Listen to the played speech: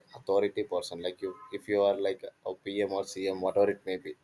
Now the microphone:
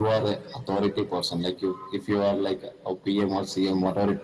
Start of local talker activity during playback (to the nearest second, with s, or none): none